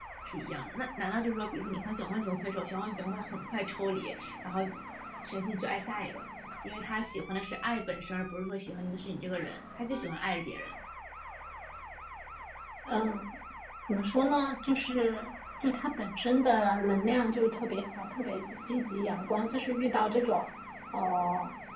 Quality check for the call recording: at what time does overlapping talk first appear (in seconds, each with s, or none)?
none